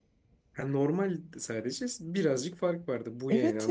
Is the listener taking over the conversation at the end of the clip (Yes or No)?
Yes